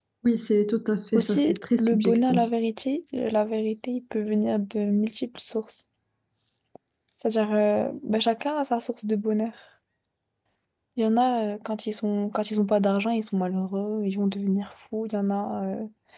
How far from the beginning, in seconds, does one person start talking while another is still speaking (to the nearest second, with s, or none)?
1 s